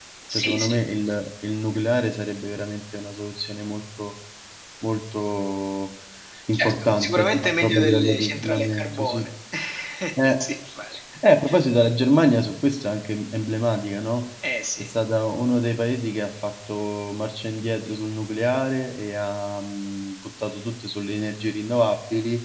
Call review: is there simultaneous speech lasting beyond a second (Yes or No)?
Yes